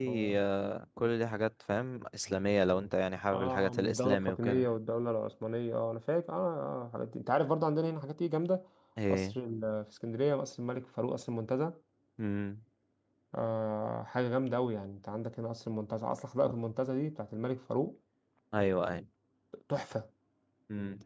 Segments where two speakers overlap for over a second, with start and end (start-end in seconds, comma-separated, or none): 3.3-4.7